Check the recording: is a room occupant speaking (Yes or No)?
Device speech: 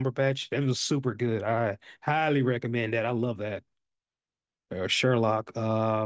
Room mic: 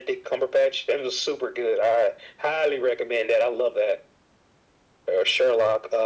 No